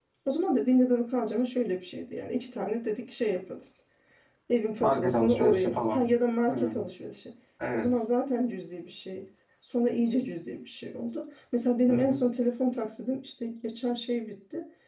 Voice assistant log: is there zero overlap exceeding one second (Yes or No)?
No